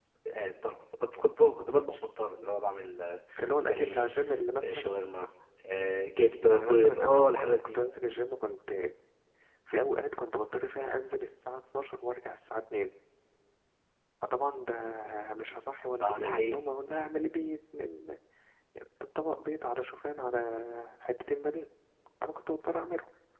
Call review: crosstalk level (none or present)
present